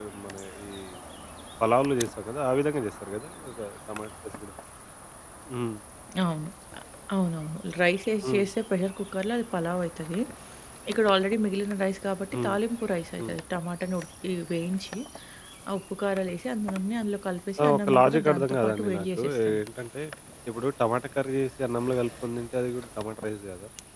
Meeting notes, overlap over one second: present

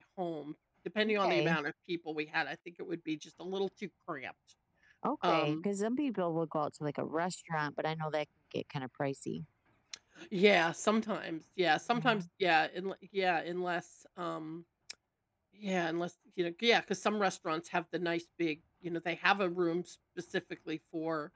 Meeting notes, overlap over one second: none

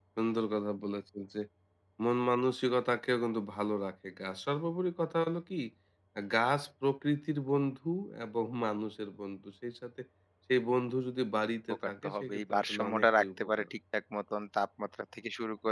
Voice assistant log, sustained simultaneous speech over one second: present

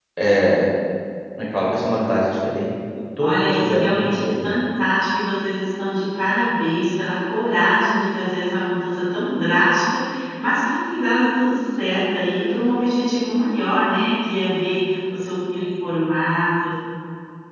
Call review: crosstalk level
present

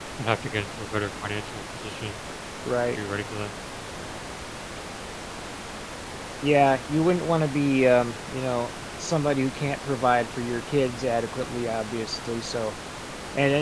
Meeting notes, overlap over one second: none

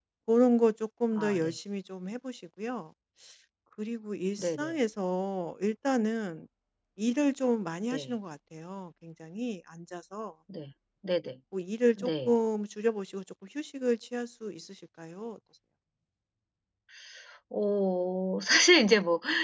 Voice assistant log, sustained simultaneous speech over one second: none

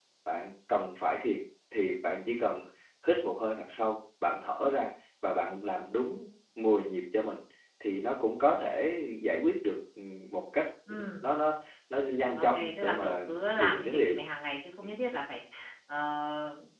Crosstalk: present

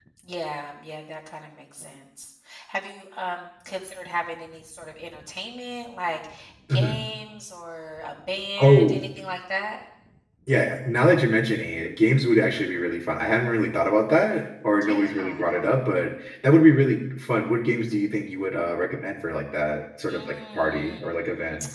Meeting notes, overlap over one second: present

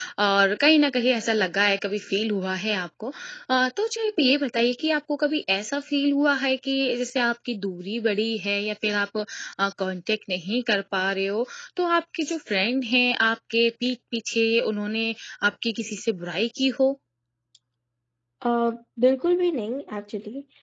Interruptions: none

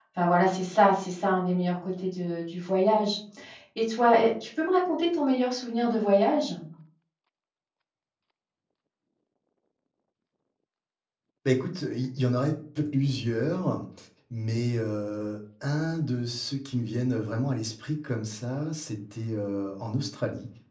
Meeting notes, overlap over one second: none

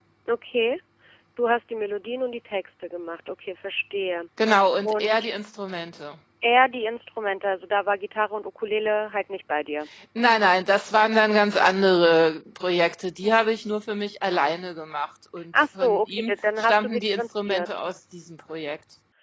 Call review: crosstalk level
present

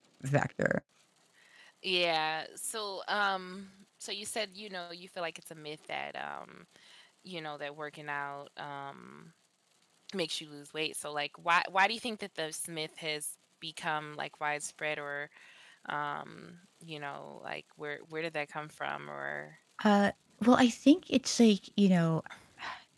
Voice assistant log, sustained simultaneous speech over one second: none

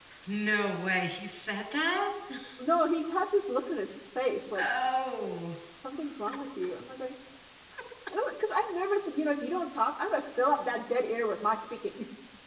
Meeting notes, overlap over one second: none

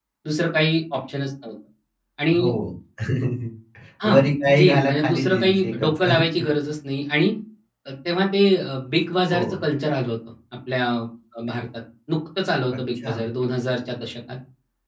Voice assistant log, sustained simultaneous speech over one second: present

